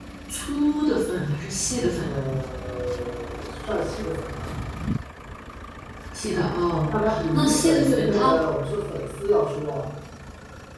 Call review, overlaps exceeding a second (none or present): present